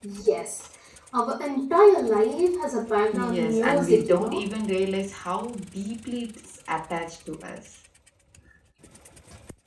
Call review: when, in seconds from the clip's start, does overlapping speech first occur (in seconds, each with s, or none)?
3.1 s